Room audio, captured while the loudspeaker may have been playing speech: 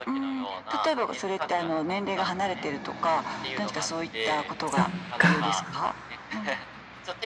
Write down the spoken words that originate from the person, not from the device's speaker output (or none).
そっか。